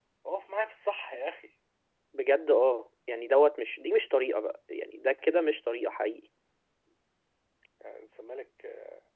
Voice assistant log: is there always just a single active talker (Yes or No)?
Yes